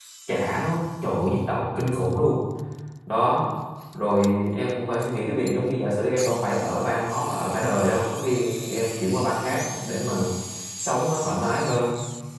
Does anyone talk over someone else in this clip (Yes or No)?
No